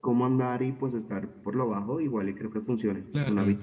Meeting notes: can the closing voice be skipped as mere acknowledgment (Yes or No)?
No